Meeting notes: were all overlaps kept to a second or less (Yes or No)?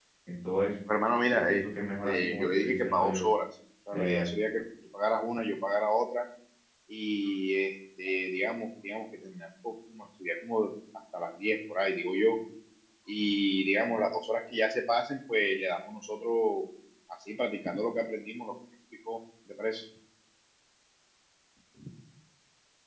No